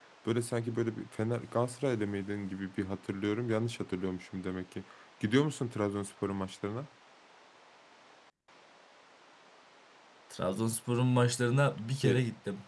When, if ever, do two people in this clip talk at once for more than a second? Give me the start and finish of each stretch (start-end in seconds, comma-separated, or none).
none